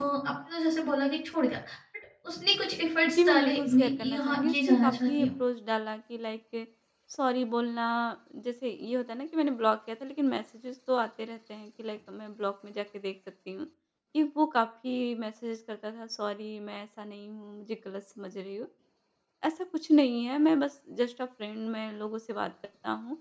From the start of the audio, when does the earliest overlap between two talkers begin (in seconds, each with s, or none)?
3.0 s